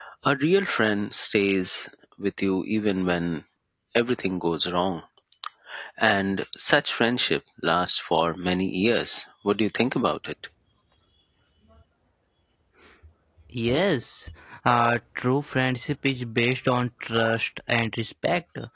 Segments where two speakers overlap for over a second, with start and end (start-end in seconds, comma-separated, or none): none